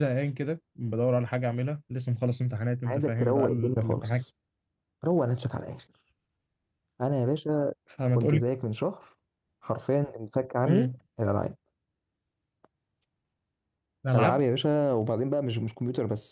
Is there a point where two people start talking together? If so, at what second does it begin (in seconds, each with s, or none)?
2.9 s